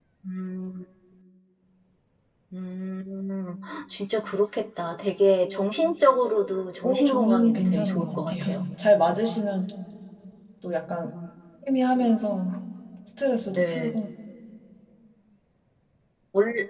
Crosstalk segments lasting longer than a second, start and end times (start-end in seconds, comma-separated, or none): 6.8-8.6